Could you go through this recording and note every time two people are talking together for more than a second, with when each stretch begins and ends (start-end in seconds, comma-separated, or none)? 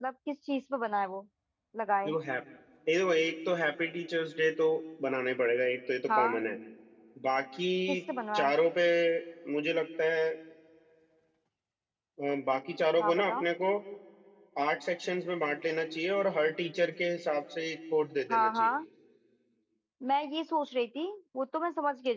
none